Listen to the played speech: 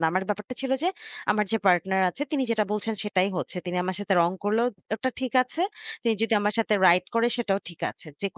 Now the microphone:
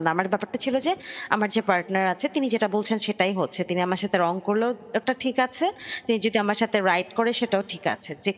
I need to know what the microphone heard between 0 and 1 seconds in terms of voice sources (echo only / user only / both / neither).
echo only